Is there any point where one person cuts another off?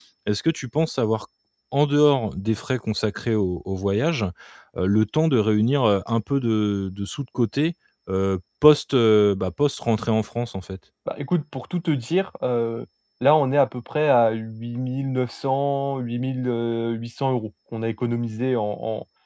No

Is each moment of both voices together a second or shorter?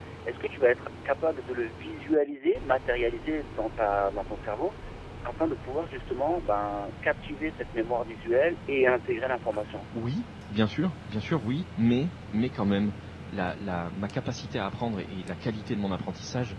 Yes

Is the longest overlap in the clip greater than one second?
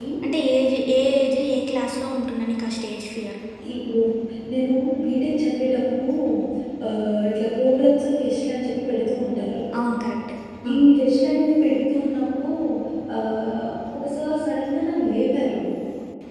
No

